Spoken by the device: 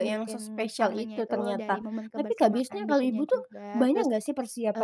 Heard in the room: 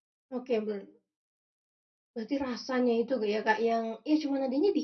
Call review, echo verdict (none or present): none